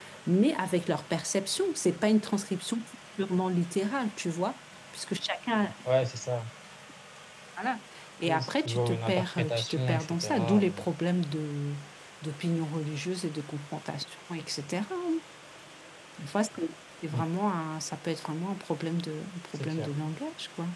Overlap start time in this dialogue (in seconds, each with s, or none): 8.2 s